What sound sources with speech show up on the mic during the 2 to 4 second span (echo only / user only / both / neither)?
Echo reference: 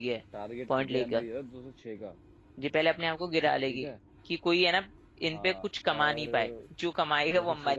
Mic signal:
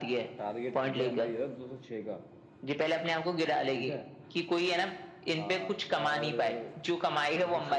echo only